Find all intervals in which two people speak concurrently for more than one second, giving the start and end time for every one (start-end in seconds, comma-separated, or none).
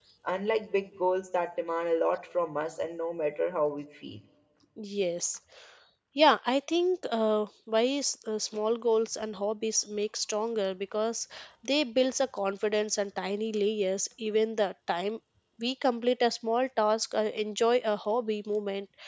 none